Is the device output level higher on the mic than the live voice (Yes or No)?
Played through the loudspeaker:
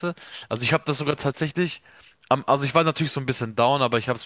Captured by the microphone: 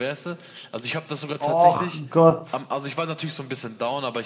No